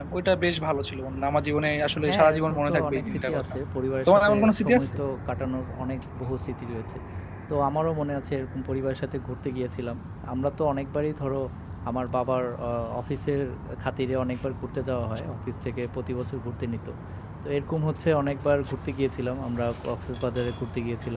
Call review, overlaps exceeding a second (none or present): present